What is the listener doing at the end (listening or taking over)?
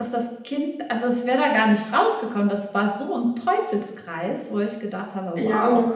taking over